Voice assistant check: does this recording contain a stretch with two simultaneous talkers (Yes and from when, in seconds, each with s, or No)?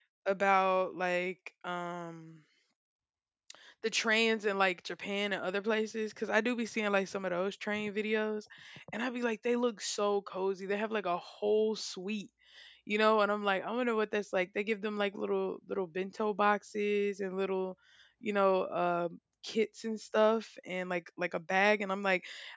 No